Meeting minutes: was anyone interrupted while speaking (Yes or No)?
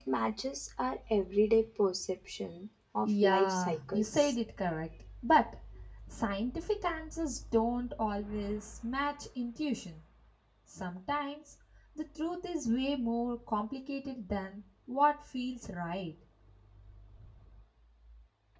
Yes